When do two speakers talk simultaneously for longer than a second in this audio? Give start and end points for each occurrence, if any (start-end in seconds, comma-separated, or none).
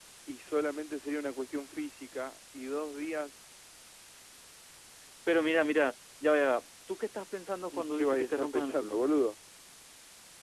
7.7-9.0